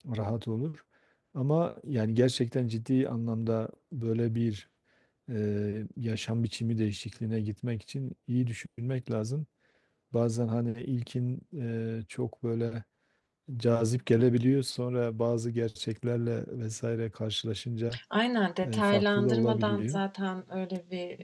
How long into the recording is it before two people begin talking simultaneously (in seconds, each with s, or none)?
18.7 s